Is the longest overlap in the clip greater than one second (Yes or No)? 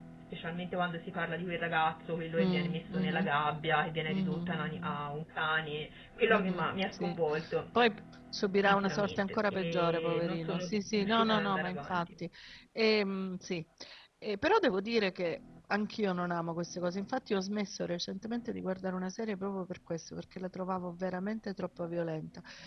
Yes